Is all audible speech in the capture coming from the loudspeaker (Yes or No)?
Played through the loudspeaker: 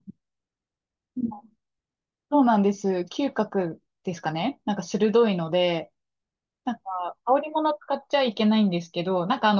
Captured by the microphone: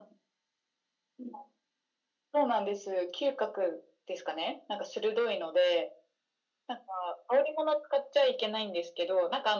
Yes